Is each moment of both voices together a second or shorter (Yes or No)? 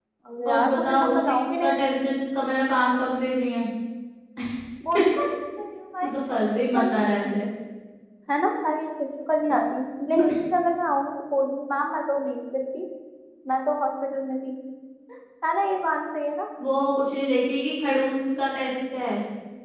No